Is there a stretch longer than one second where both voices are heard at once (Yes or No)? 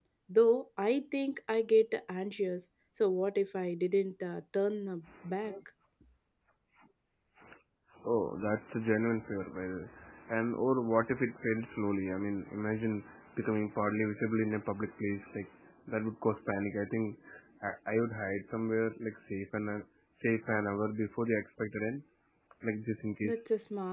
No